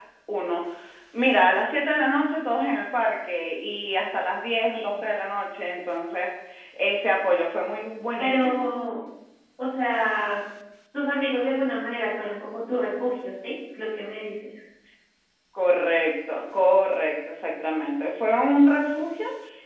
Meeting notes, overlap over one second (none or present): none